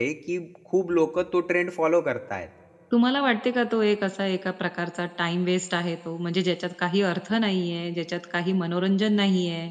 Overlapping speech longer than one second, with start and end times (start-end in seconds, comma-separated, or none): none